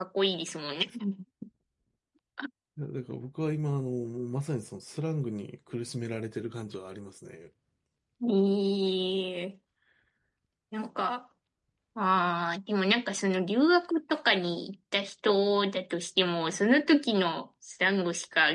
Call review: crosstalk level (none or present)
none